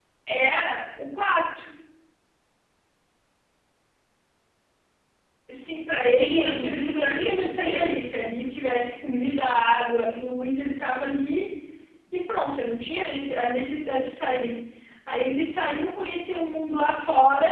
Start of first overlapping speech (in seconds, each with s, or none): 6.2 s